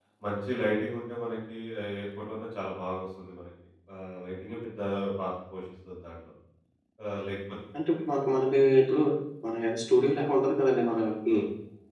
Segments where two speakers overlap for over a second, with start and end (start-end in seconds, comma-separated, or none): none